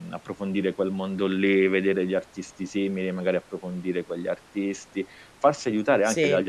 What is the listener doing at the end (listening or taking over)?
listening